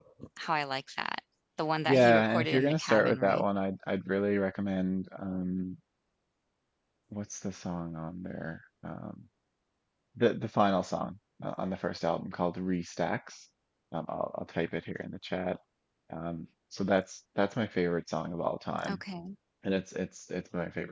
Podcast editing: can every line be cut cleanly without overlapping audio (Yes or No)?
No